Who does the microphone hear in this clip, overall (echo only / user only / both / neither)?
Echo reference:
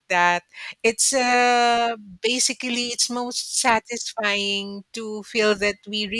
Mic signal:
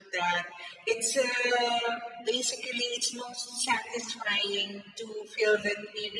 echo only